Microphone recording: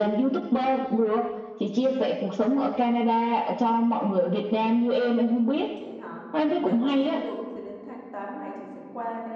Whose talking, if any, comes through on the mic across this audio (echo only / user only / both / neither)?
both